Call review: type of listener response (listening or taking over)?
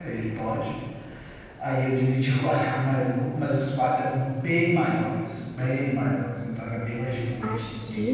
taking over